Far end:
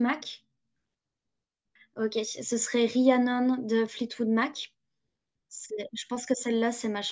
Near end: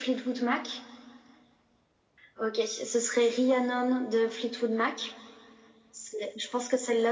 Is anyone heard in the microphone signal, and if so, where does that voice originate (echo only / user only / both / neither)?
echo only